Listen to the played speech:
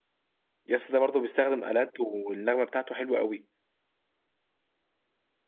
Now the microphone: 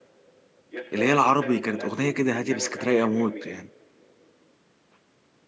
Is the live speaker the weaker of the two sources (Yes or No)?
No